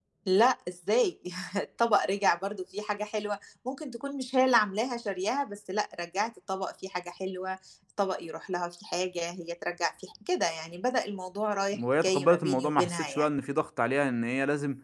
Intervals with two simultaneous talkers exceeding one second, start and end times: 12.0-13.3

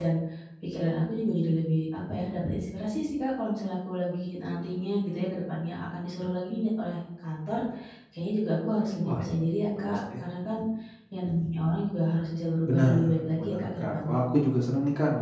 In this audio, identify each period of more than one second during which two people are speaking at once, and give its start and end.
12.6-14.2

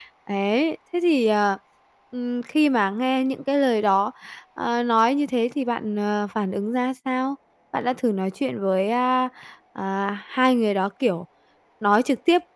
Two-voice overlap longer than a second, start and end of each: none

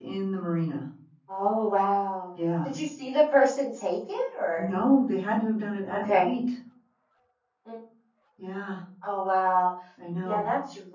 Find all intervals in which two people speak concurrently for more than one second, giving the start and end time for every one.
none

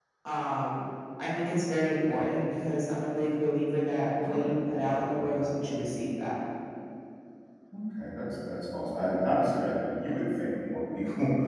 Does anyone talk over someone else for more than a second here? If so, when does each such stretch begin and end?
4.2-6.0

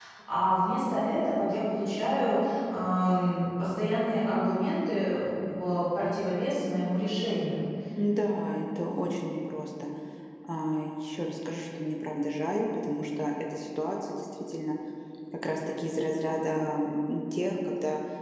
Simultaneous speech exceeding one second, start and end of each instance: none

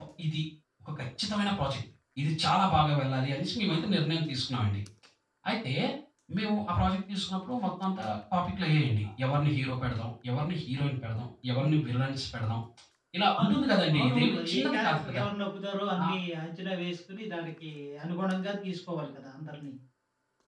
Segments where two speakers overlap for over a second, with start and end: 14.0-15.2

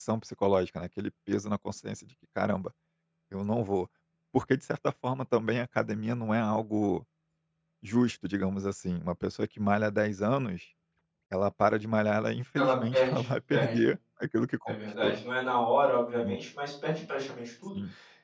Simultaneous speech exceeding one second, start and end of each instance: 12.6-13.8

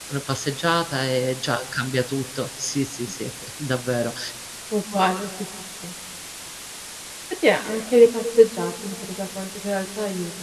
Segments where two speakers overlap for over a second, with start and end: none

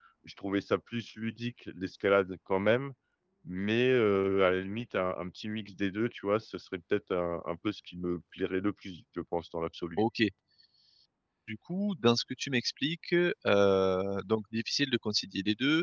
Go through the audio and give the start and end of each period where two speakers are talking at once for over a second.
none

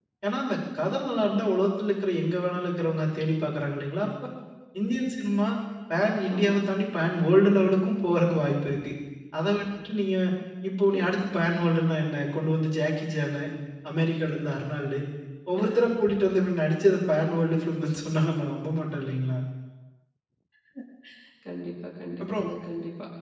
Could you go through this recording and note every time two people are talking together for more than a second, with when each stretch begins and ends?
none

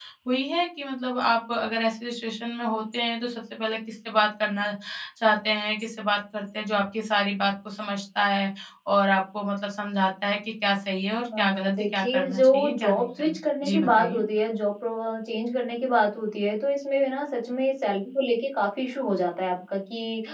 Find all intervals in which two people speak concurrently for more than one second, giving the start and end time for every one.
11.2-14.2

